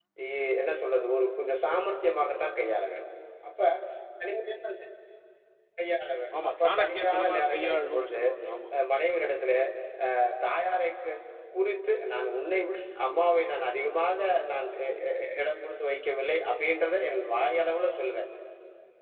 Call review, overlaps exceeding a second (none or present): present